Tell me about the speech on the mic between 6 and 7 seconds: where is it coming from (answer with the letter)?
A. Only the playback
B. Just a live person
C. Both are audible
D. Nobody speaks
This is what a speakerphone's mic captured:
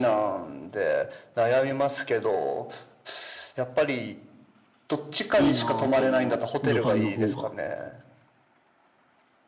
C